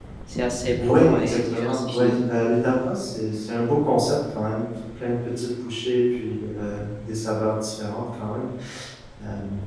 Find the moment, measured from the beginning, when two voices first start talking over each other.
0.9 s

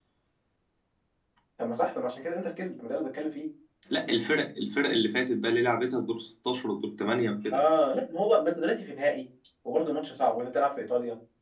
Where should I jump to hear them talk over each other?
none

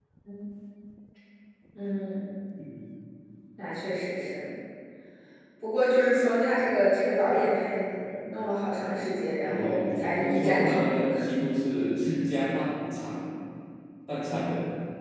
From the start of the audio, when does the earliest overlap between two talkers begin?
9.4 s

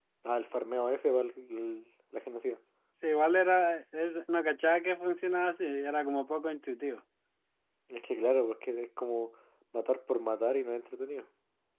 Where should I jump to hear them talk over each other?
none

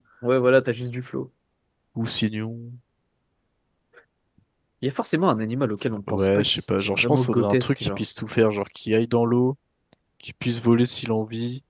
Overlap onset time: 6.1 s

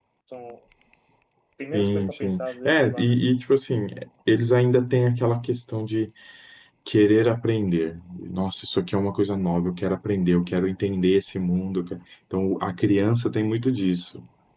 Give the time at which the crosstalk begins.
1.7 s

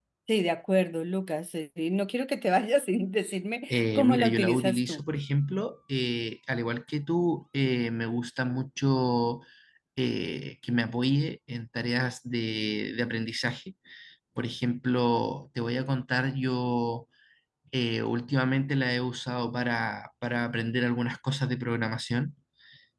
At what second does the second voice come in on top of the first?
3.7 s

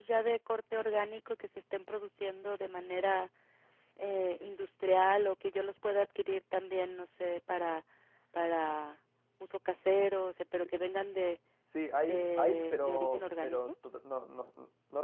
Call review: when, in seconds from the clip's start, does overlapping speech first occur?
12.1 s

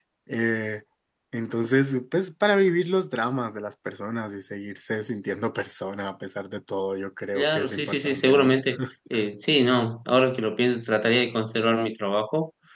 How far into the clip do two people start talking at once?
7.4 s

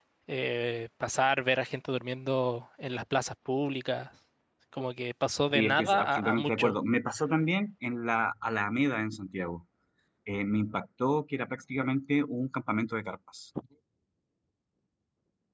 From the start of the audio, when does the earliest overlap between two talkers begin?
5.5 s

